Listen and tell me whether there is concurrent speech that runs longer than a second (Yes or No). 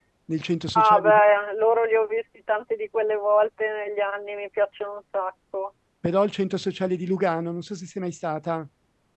No